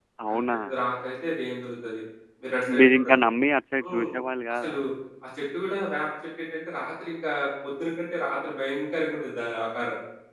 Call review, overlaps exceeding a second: none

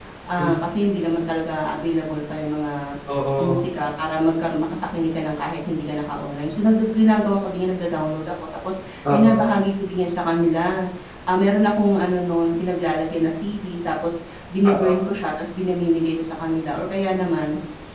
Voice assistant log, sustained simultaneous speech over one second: none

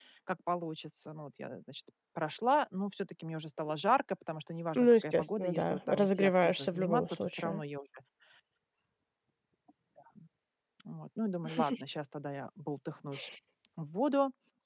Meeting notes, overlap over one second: present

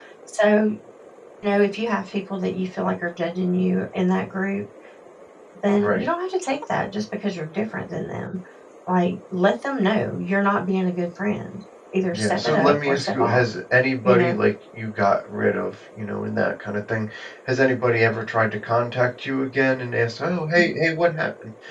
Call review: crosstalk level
present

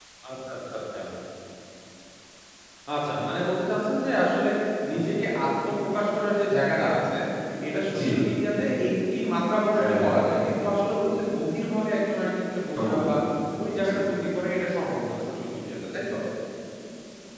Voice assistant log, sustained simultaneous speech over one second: none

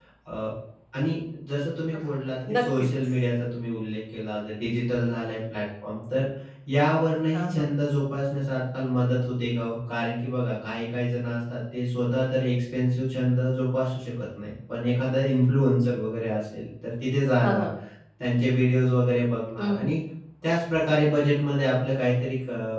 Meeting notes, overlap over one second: none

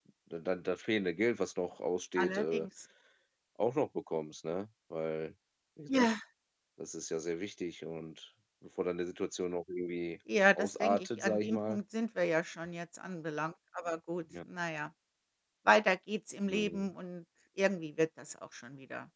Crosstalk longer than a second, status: present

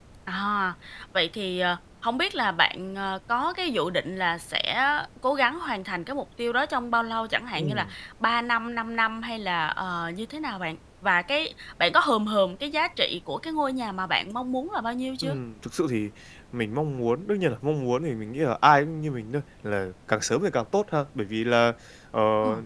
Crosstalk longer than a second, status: none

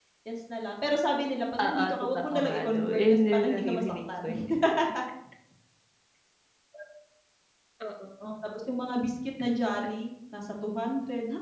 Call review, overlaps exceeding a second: present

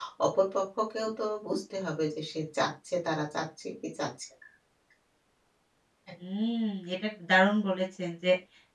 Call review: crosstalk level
none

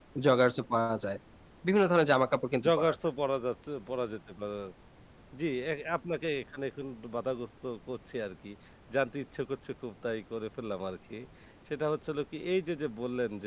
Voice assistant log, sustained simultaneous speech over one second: none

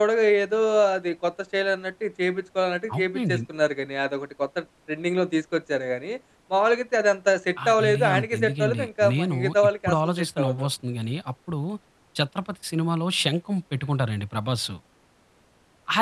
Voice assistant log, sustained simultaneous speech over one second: present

